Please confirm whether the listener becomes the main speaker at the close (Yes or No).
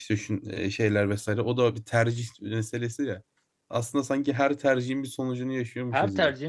Yes